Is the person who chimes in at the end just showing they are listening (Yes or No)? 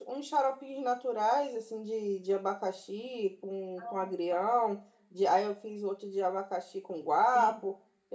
Yes